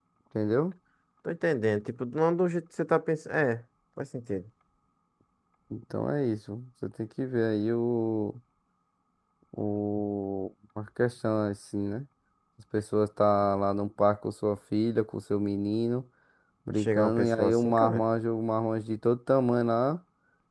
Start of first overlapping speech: 17 s

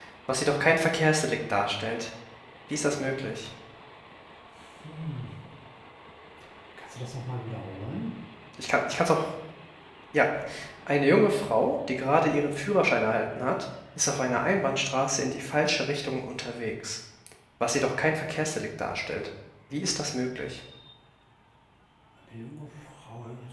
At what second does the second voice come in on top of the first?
none

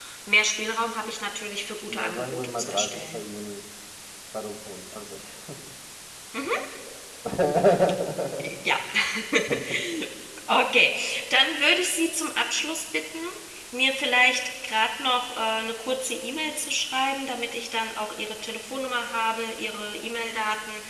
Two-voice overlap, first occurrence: 2 s

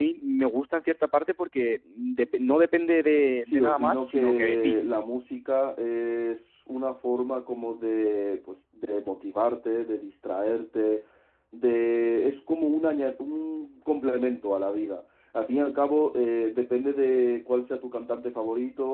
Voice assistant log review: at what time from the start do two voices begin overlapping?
3 s

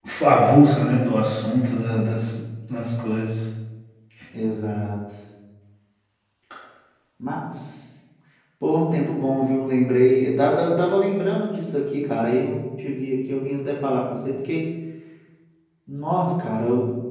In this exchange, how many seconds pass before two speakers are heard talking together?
none

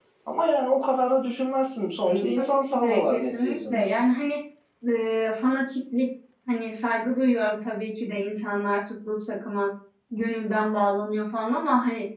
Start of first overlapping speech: 2 s

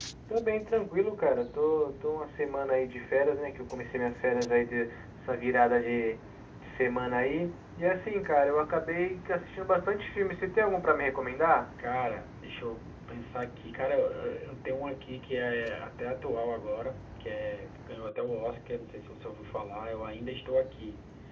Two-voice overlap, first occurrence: none

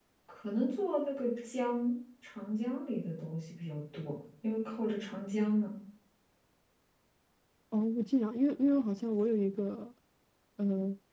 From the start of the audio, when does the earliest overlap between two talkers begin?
none

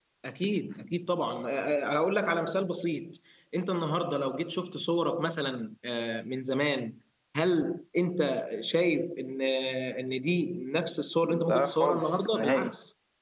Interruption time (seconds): 11 s

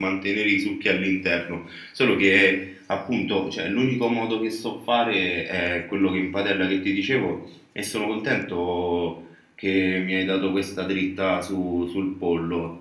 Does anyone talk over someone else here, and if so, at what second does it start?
none

